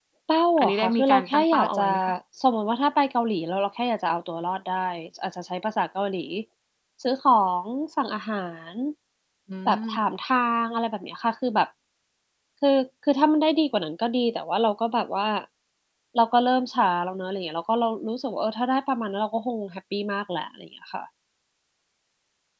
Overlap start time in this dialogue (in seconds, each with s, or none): 0.6 s